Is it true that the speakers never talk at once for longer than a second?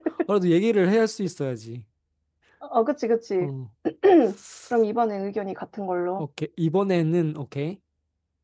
Yes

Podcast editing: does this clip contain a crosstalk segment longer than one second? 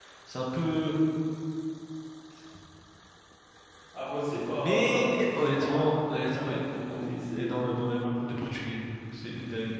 Yes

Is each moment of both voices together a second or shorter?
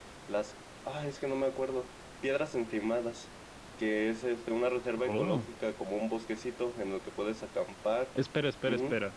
Yes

